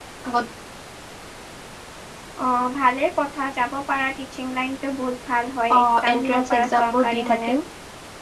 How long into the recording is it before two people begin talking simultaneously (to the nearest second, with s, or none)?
6 s